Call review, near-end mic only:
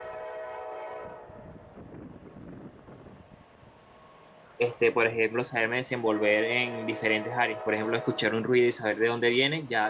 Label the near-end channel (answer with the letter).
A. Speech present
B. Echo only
A